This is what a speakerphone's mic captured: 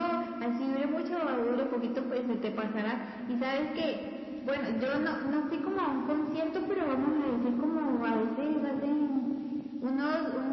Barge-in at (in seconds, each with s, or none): none